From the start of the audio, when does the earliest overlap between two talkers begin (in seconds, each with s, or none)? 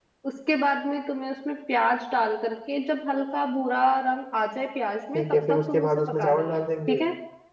5.1 s